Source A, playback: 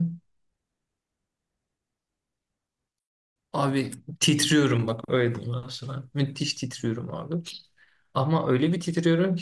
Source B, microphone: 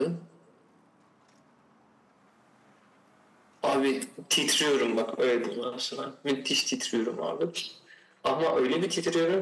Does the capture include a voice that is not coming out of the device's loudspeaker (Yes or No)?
No